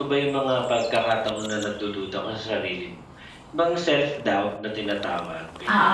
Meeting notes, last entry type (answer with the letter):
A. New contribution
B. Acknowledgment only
A